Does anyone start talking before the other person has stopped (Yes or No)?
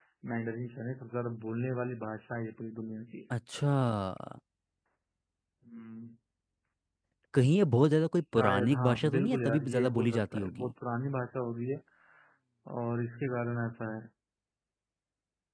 Yes